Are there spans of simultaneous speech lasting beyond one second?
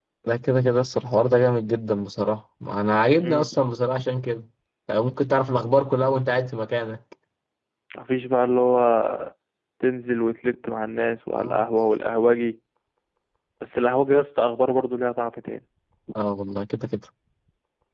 No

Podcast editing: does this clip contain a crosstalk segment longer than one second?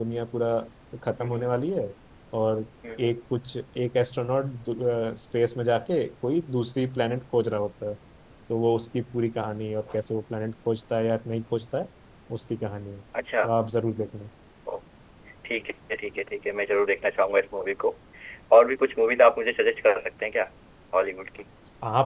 No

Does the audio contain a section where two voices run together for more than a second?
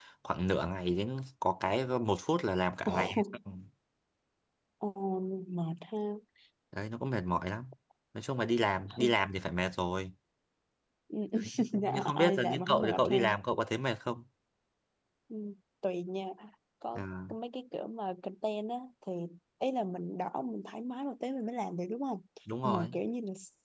Yes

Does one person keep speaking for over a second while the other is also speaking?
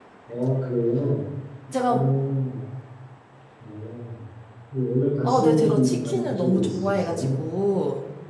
Yes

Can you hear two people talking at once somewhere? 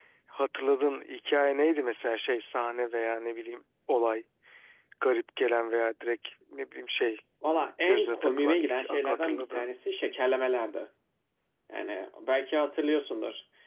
Yes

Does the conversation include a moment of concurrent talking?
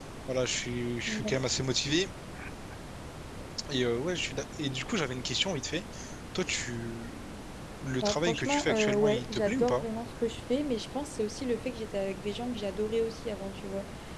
Yes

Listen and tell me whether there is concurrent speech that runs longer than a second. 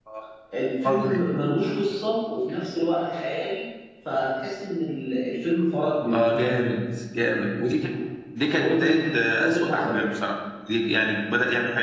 Yes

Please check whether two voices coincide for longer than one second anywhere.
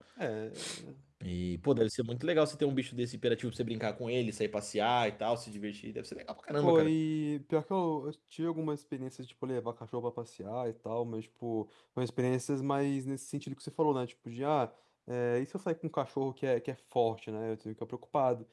No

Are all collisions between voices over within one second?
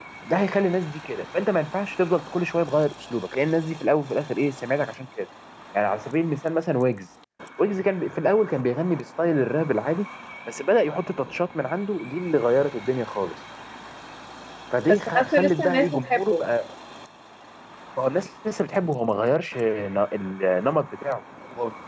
No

